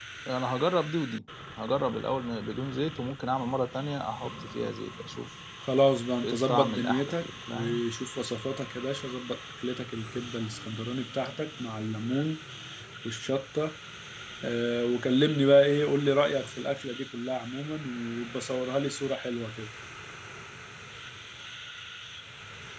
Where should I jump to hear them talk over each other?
6 s

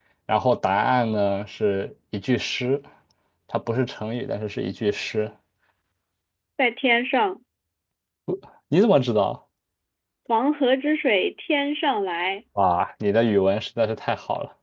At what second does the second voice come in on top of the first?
none

